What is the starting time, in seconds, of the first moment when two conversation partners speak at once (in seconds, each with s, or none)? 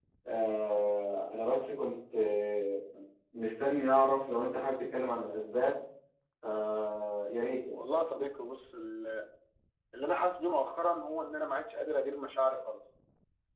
none